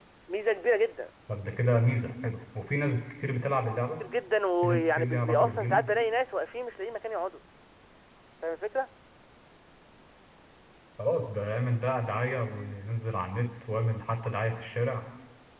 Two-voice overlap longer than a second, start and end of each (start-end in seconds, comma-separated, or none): 4.6-5.9